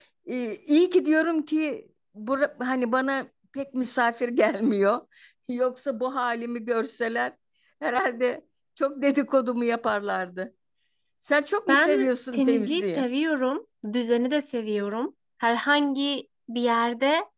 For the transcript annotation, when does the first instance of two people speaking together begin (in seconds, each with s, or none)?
11.7 s